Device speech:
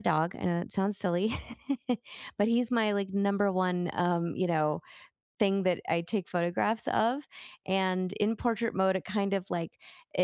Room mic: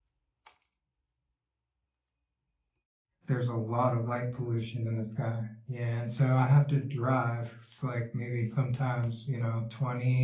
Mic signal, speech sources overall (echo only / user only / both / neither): user only